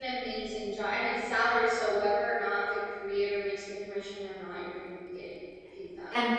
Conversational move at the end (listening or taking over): taking over